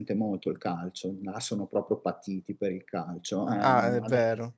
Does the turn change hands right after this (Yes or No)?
Yes